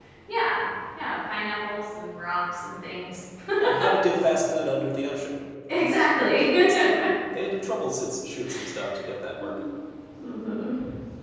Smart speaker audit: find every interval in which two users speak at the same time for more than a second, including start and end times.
none

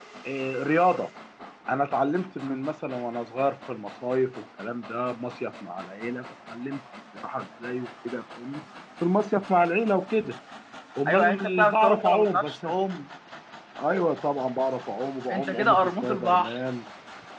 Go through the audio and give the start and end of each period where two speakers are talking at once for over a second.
11.1-12.7, 15.3-16.6

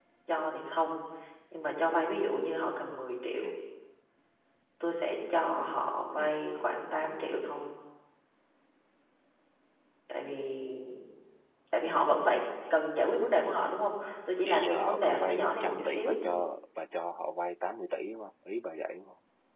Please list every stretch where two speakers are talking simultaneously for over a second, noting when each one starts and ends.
14.4-16.1

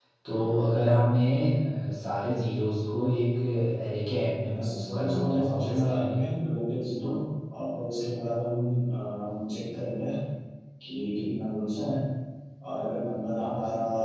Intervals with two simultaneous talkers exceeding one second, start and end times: 4.6-6.2

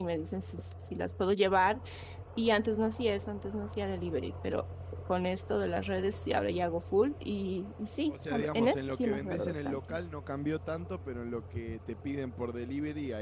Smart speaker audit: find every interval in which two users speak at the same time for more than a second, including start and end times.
8.1-10.0

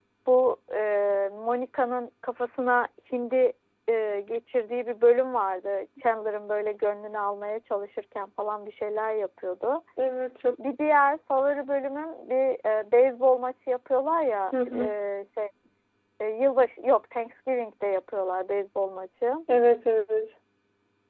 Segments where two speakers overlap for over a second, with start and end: none

